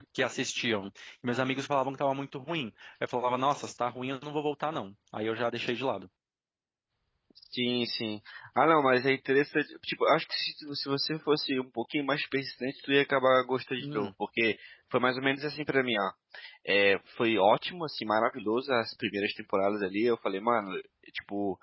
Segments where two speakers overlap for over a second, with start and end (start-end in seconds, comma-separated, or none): none